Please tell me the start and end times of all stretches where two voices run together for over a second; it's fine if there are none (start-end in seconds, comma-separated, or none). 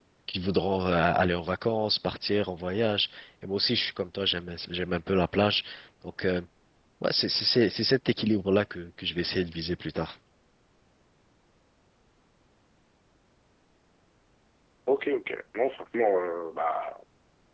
none